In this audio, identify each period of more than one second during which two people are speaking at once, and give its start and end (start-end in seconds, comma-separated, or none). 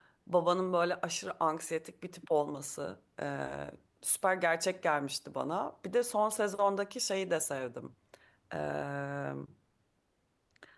none